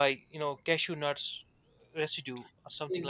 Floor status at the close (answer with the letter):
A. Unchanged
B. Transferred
B